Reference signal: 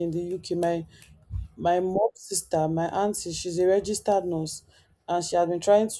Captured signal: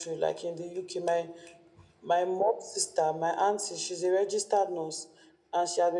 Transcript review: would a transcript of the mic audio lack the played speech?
No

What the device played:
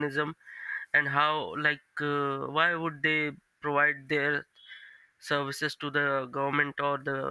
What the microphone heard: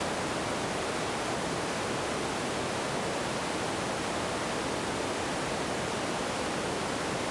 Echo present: No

